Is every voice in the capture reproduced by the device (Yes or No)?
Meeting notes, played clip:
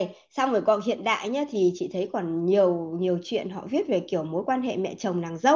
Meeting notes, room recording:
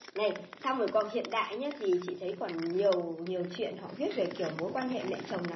Yes